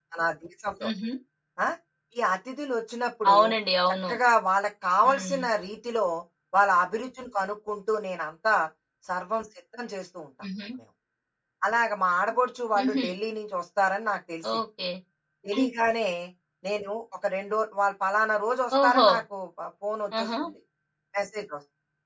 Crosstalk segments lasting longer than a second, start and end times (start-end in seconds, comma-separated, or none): none